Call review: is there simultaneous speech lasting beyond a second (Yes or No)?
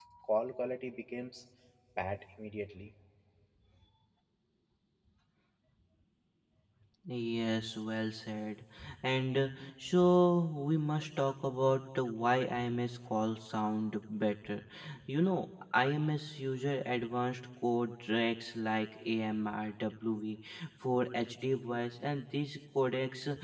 No